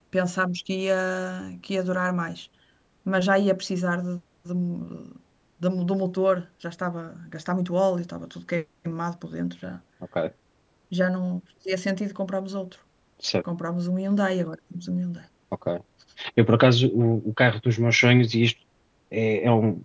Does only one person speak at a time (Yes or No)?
Yes